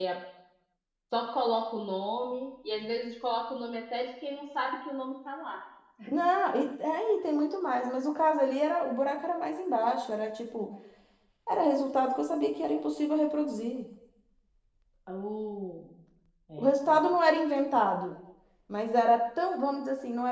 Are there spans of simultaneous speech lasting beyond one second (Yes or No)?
No